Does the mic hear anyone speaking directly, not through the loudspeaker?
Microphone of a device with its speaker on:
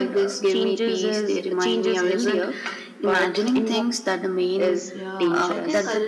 Yes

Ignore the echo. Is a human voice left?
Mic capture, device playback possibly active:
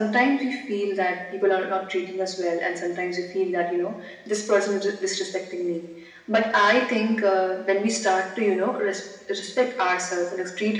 No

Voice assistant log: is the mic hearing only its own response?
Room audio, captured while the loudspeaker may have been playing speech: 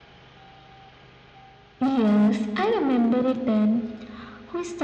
Yes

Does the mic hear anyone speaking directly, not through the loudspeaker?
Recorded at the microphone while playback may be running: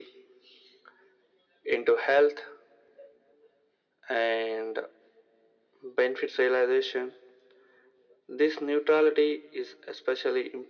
No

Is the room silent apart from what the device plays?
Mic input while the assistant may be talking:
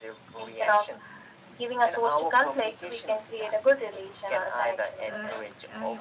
No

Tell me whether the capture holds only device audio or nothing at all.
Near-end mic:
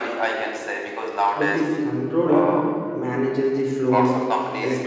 No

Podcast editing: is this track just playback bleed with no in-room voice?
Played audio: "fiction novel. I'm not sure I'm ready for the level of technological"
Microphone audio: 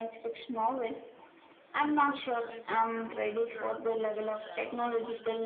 No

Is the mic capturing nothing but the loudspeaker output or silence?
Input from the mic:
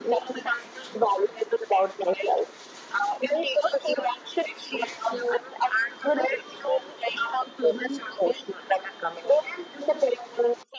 Yes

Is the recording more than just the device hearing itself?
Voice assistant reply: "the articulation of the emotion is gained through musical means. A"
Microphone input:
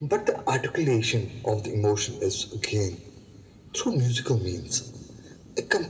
No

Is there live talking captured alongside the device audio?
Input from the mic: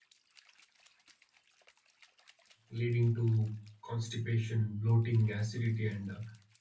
Yes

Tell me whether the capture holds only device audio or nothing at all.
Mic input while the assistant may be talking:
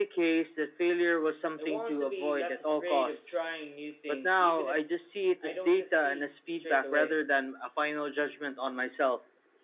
No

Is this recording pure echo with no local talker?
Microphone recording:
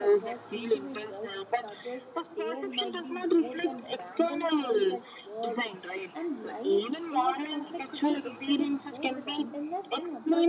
No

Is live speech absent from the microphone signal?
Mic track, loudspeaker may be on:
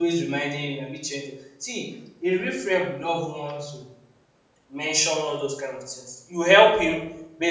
No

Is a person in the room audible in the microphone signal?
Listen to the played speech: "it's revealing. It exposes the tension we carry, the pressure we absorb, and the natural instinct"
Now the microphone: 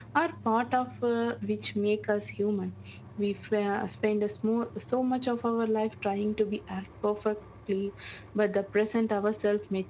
Yes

